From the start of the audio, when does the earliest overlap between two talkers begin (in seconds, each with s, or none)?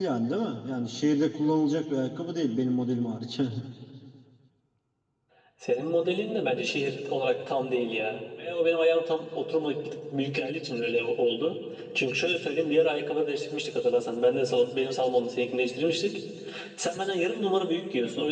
none